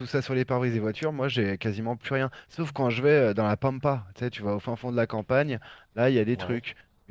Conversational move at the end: listening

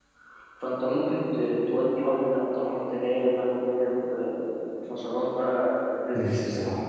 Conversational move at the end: taking over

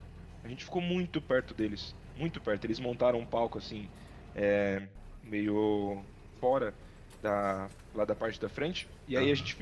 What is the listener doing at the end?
listening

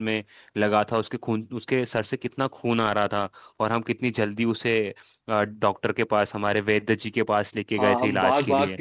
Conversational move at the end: taking over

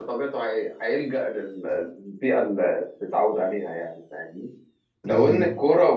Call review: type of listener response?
listening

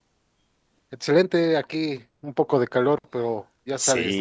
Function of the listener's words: taking over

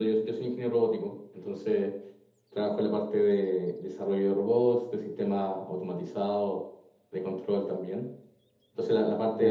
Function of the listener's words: listening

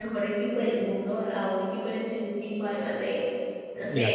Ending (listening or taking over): listening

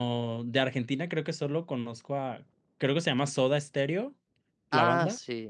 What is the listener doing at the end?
taking over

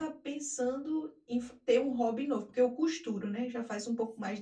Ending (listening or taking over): listening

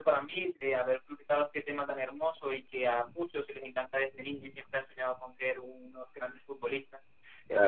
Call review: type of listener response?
listening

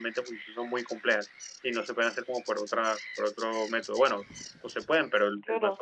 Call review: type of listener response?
listening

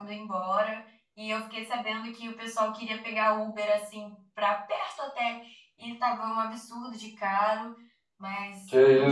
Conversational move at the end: listening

